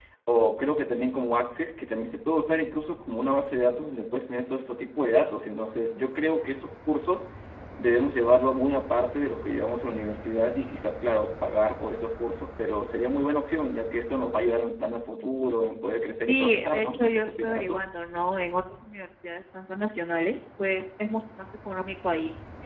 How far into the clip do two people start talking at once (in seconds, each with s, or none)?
16.3 s